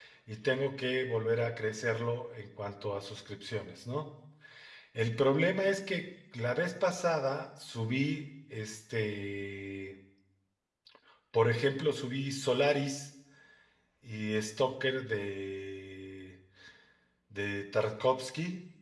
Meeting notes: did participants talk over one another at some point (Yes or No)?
No